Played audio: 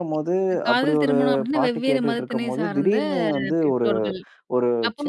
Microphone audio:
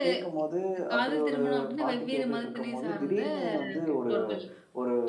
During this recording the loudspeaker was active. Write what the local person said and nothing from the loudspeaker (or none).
none